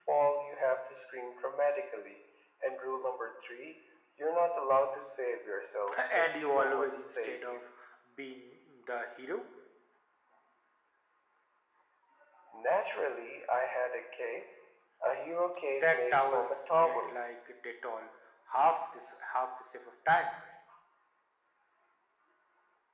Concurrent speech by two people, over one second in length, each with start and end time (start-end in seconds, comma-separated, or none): 6.2-7.6, 15.7-17.1